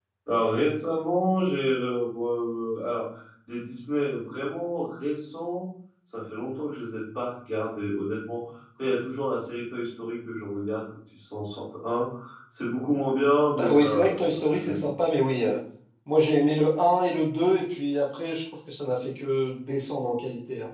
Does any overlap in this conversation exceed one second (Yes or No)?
Yes